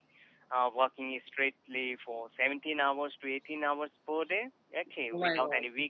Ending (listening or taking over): listening